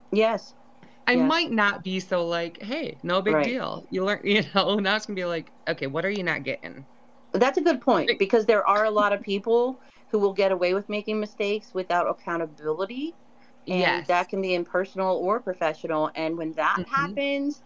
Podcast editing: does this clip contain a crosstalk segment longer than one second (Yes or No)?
No